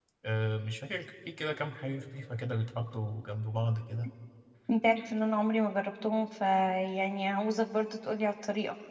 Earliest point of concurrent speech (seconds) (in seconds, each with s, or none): none